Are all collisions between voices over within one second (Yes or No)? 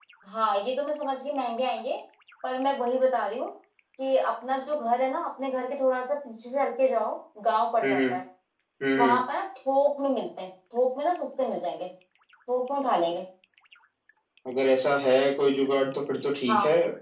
Yes